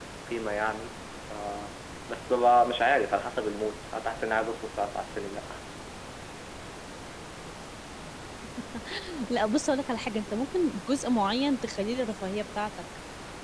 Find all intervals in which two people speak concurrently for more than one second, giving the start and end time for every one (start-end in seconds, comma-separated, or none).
none